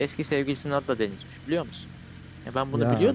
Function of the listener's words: listening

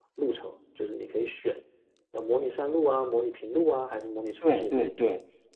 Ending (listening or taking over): taking over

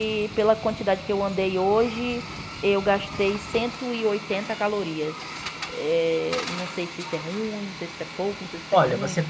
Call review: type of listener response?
taking over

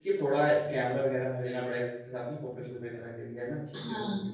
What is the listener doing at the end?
taking over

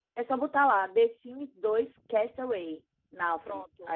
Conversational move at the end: taking over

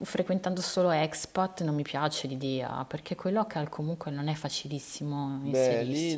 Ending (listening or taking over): taking over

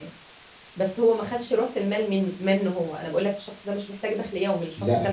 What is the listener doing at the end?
taking over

